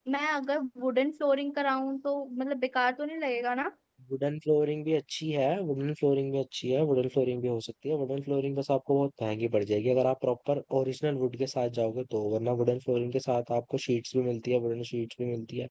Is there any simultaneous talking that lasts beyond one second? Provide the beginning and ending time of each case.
none

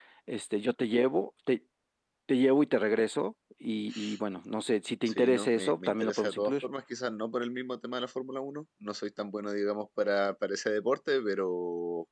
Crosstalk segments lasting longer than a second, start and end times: 5.1-6.6

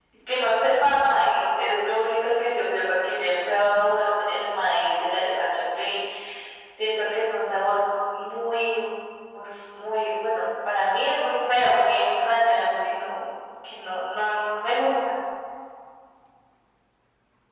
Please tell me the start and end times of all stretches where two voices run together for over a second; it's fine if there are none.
none

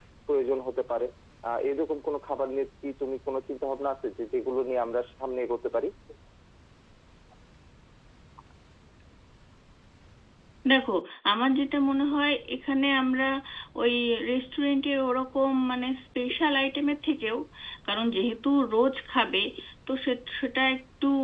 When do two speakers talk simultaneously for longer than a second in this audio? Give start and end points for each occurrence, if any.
none

